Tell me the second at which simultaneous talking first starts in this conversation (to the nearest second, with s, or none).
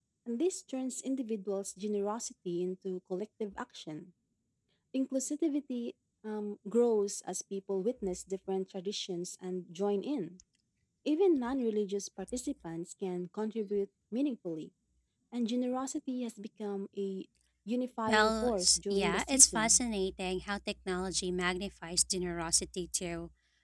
18 s